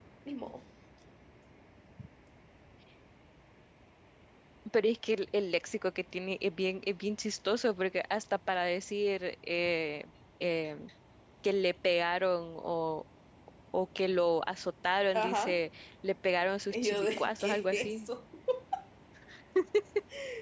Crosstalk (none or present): present